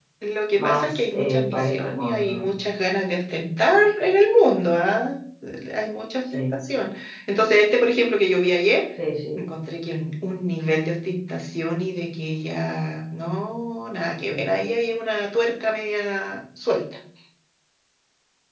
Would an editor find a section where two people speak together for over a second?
Yes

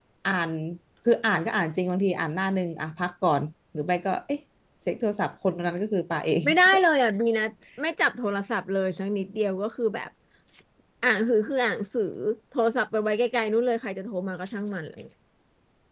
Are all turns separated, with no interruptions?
Yes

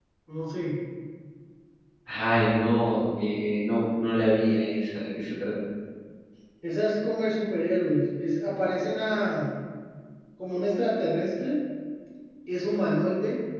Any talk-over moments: No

